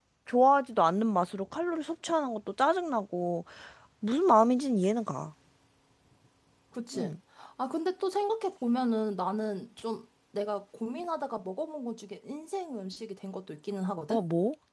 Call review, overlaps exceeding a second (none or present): none